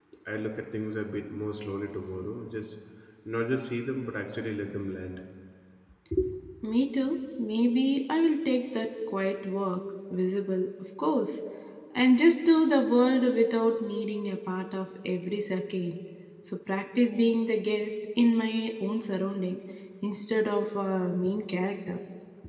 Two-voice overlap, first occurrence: none

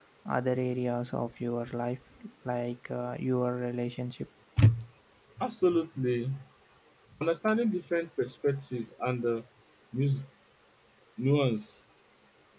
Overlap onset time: none

